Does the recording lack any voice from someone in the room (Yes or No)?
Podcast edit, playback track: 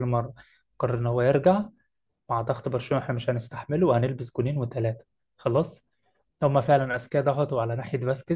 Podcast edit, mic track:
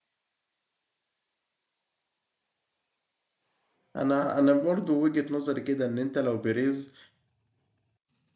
No